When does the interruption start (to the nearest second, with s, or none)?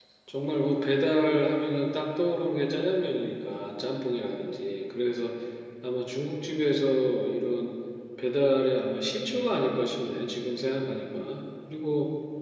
none